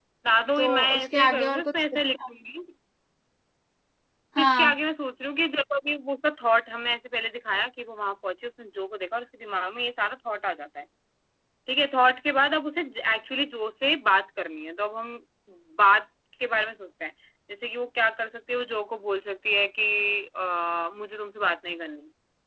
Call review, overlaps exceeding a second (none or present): present